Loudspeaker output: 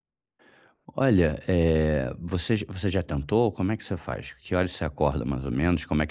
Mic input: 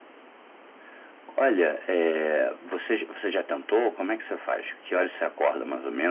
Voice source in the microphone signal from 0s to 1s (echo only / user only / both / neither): neither